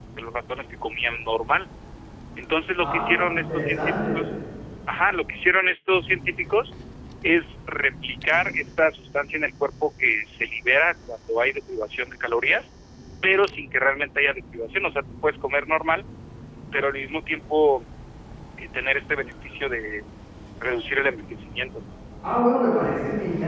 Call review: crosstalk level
present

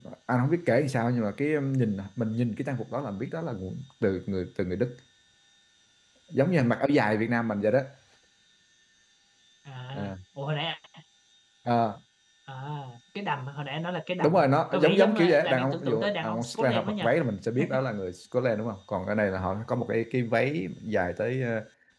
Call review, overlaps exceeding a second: present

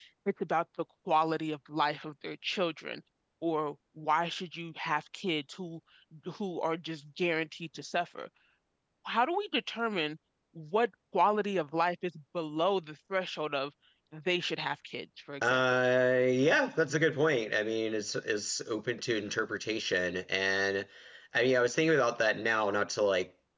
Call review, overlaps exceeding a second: none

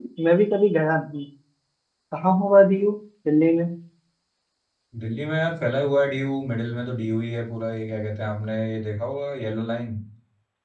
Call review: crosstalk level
none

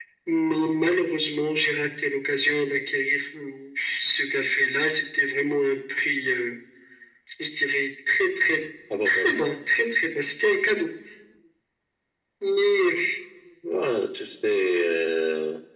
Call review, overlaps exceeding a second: none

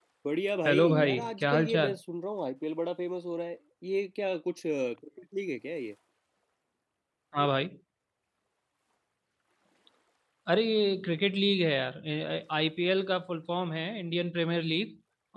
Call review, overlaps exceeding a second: present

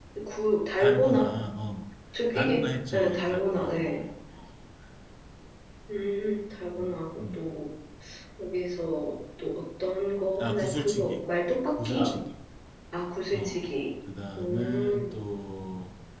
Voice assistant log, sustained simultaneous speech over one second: present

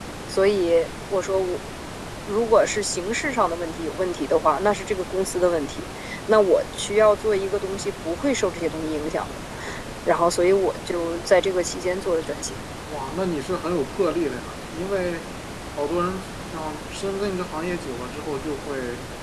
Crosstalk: none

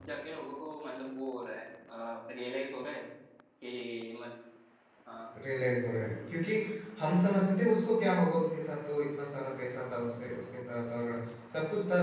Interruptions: none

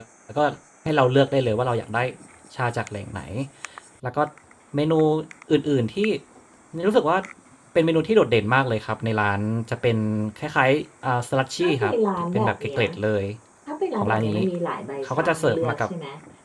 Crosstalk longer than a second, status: present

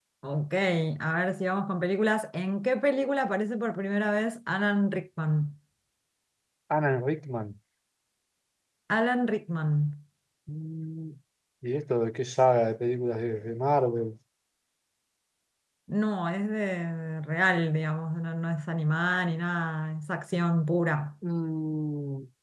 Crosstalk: none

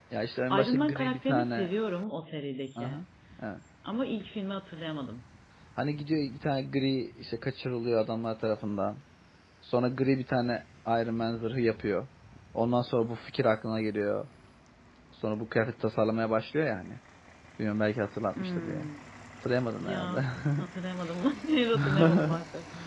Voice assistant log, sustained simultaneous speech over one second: present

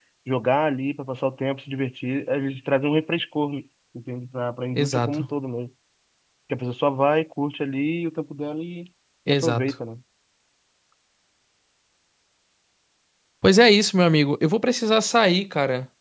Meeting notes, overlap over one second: none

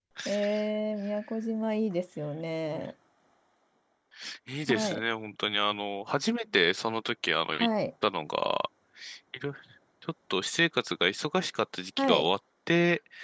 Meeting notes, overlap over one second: none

